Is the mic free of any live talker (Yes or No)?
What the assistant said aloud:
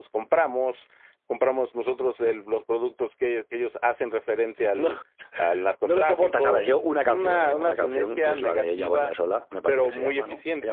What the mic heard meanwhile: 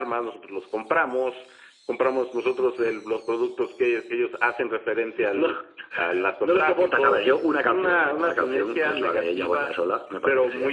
Yes